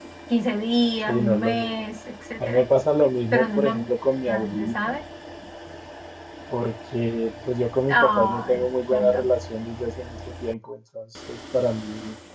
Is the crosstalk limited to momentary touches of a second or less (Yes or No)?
No